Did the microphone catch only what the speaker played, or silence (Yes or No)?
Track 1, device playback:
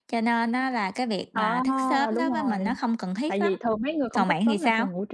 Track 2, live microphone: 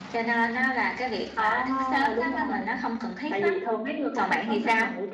Yes